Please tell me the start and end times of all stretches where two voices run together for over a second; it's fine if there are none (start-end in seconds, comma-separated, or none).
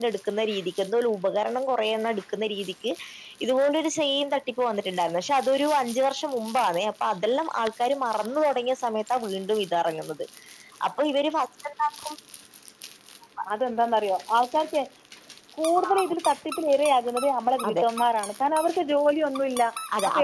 none